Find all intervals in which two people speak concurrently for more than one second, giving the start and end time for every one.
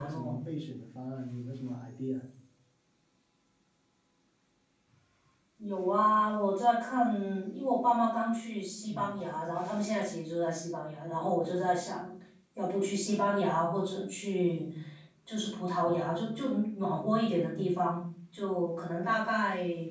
none

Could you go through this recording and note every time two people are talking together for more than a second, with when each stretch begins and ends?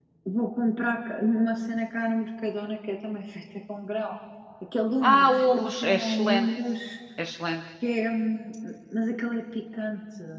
5.0-6.5

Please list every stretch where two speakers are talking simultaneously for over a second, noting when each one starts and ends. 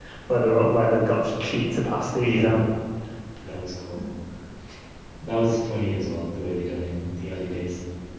none

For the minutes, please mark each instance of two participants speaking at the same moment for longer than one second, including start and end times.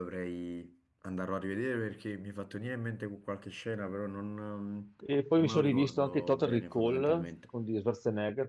5.5-7.3

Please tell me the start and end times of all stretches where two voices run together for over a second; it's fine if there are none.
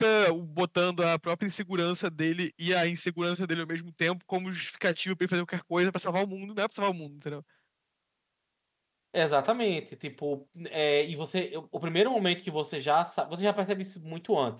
none

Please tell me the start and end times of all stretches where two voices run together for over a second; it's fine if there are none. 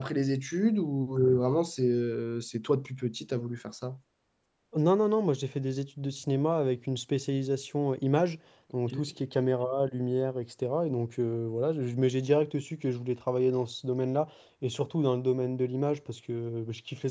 none

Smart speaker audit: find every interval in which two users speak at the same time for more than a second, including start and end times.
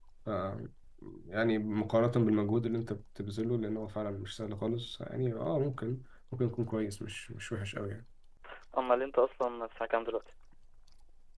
none

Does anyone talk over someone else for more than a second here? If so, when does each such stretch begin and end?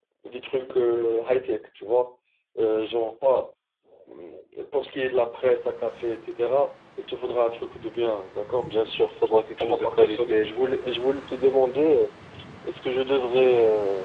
9.6-10.8

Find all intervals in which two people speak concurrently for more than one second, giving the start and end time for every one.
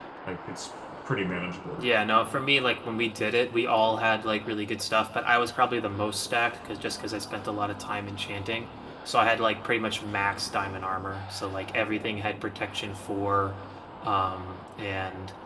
none

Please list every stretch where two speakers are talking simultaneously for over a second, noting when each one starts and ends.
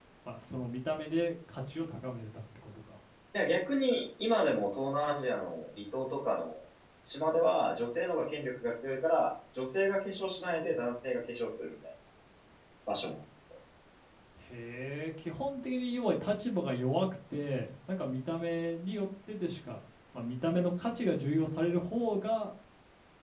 none

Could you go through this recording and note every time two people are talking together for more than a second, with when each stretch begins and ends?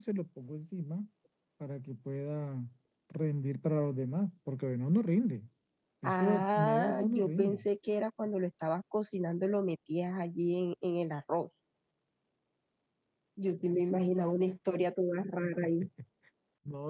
6.0-7.6

